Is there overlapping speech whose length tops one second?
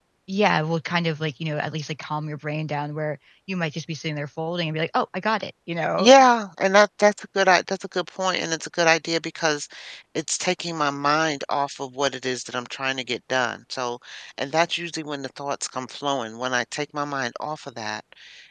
No

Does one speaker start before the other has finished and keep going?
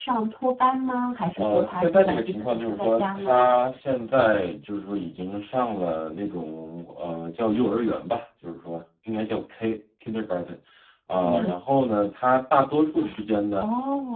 Yes, from 1.4 s

